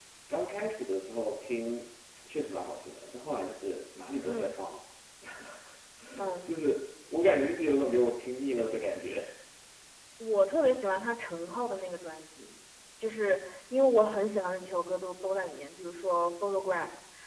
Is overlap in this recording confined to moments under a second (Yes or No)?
Yes